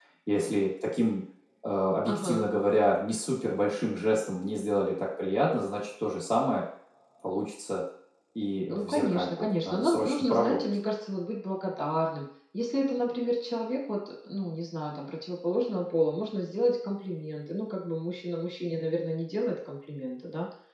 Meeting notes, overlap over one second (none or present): present